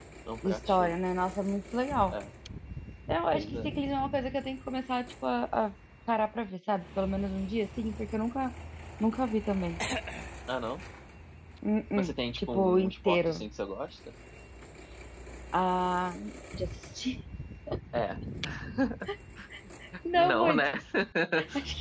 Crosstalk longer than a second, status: present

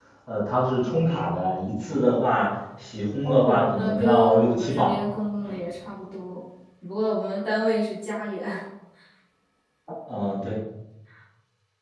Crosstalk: present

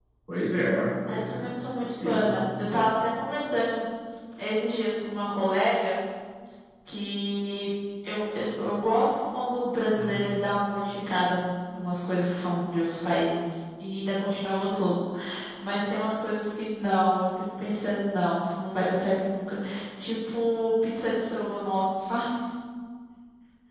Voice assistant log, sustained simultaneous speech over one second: present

